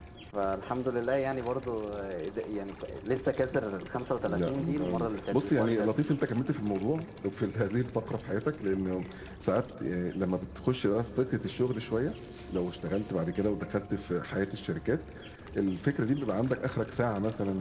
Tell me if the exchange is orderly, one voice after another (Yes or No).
No